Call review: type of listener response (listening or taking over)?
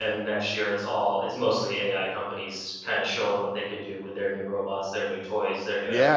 taking over